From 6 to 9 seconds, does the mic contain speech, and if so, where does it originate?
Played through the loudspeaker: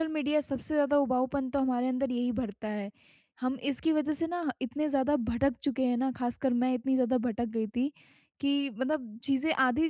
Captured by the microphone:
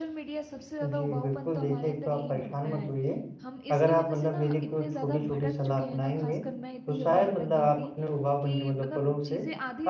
both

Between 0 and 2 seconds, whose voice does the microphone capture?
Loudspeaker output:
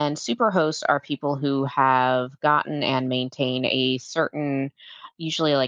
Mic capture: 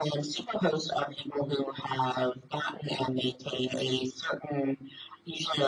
echo only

